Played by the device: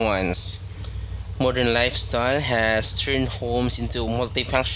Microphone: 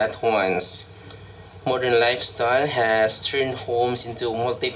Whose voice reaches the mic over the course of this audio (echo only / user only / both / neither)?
echo only